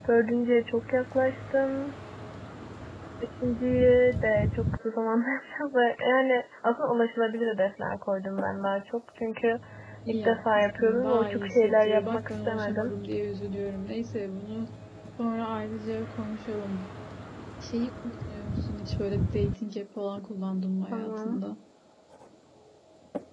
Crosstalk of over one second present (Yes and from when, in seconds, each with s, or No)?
Yes, from 10.2 s